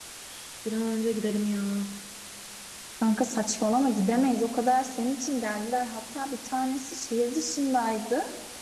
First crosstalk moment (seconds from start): none

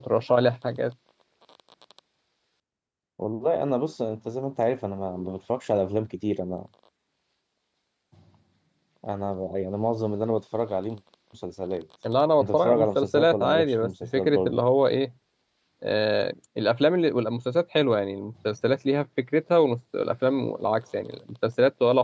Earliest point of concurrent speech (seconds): 12 s

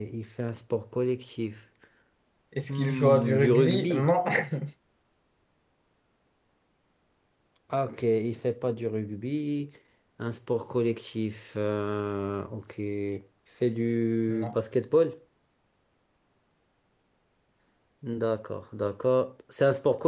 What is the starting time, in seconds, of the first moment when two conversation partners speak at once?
3 s

